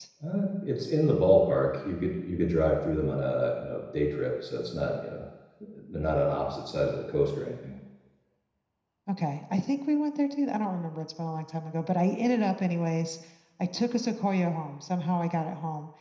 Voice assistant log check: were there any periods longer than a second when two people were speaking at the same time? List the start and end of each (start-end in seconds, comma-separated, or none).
none